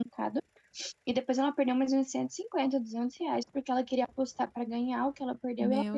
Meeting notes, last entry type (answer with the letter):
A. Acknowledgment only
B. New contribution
B